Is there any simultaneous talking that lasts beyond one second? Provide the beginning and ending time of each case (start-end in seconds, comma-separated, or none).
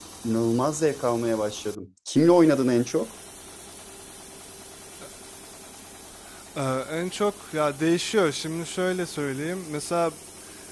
none